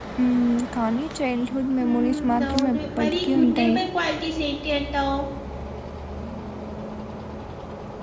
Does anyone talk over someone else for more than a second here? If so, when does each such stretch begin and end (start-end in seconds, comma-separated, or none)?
1.8-3.8